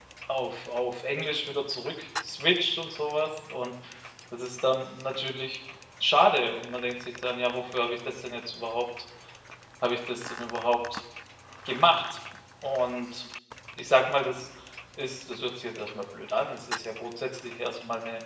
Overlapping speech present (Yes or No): No